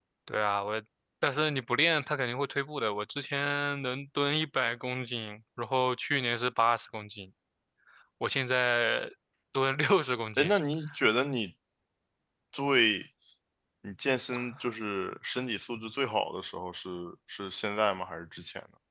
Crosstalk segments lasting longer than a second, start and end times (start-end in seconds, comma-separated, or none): none